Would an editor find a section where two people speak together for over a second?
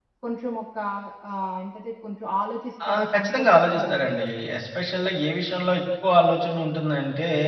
Yes, from 2.8 s

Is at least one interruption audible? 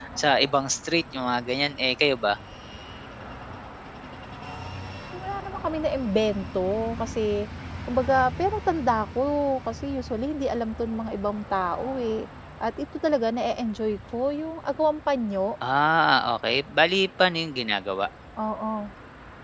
No

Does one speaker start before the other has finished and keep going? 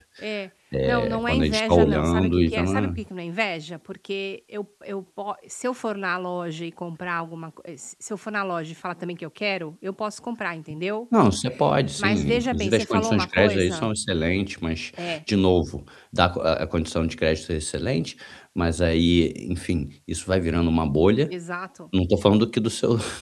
Yes, from 0.8 s

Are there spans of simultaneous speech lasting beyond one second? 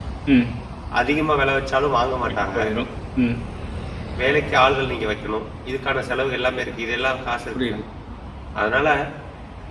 No

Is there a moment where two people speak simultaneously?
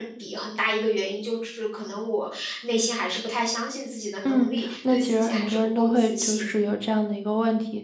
Yes, from 4.2 s

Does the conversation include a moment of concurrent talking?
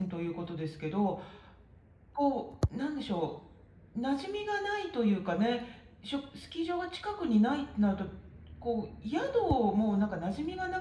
No

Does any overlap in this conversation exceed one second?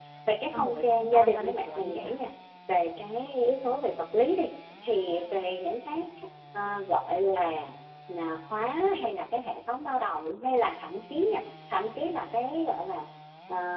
Yes, from 0.5 s

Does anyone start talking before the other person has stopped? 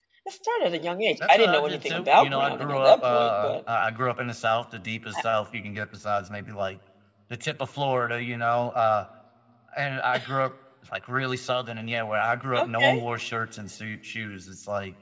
Yes, from 1.3 s

